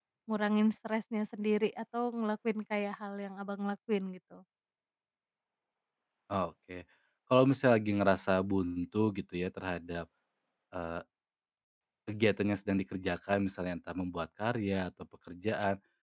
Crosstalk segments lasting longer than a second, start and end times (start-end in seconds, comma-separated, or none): none